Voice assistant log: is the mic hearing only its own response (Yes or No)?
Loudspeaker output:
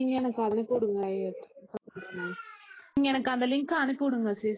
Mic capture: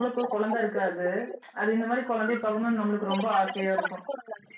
No